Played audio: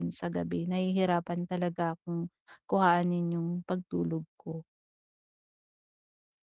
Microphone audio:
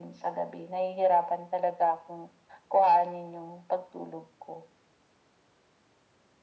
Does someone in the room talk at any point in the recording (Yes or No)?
No